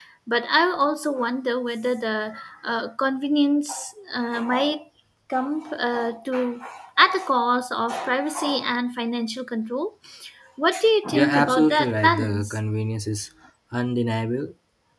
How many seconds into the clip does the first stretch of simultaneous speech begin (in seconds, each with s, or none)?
11.1 s